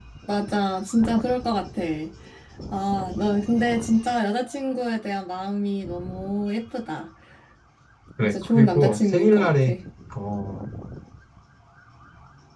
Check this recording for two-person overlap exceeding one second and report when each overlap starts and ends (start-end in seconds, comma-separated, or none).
8.2-9.7